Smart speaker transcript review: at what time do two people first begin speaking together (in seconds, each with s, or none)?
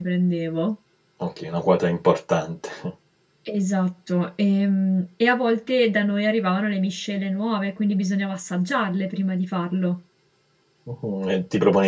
none